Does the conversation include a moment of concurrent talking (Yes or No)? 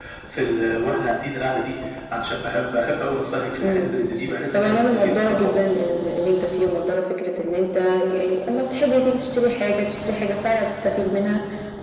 Yes